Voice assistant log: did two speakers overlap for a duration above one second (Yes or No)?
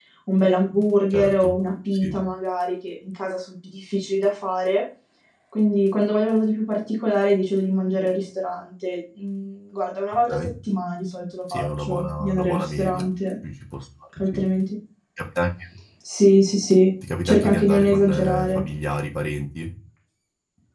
Yes